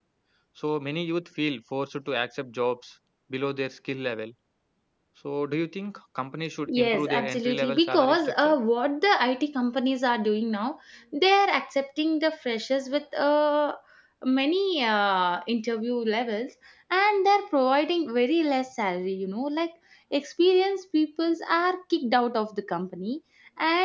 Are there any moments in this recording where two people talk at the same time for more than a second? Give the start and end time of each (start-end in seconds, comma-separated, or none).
6.7-8.6